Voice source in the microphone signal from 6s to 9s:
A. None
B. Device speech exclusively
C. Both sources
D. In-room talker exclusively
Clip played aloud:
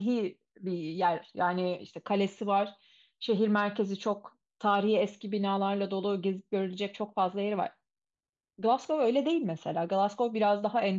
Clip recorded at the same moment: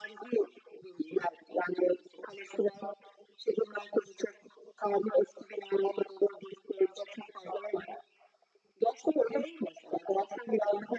B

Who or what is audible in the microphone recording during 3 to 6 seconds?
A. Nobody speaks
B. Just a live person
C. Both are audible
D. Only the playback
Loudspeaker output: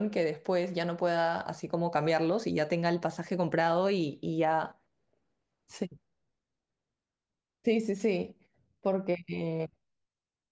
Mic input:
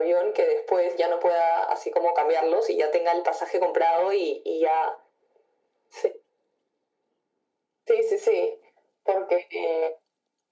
D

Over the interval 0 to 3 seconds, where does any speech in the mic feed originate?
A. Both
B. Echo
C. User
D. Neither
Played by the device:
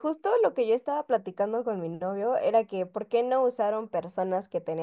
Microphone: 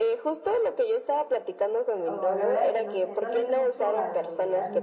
A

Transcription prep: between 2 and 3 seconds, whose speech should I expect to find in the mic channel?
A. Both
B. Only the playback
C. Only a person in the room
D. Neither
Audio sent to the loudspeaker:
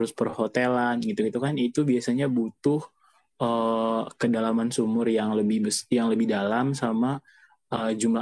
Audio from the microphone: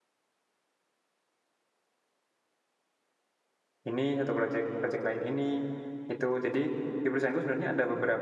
D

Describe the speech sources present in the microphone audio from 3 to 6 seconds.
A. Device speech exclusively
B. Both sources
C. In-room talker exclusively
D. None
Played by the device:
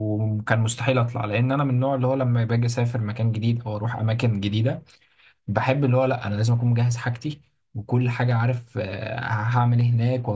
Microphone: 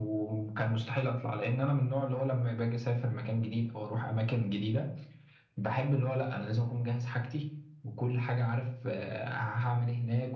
A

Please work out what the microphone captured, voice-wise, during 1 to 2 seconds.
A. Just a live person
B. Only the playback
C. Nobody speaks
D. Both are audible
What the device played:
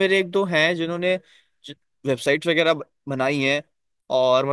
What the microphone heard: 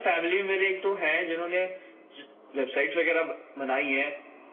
B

